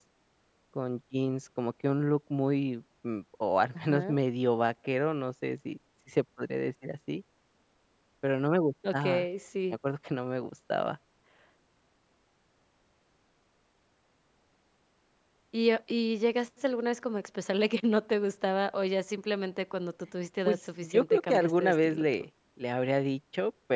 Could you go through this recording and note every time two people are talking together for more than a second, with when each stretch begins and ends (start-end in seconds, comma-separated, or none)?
20.4-22.1